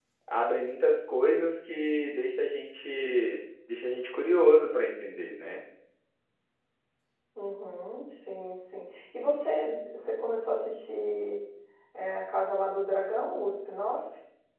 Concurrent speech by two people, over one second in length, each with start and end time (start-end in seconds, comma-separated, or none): none